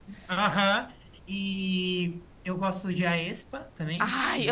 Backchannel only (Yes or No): No